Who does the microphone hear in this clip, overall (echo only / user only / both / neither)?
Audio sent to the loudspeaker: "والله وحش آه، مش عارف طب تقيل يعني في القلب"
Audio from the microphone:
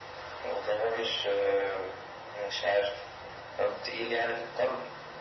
echo only